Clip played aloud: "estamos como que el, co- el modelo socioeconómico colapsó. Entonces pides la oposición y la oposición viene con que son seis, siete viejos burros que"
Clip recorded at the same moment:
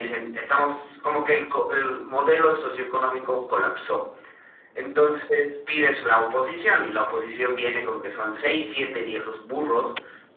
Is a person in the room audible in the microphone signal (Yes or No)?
No